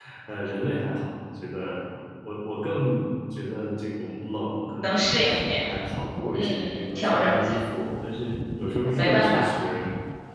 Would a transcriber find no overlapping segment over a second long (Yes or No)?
No